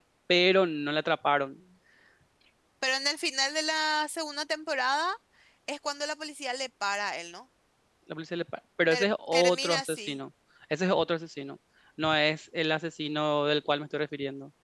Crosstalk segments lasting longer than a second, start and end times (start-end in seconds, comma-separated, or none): 8.9-10.2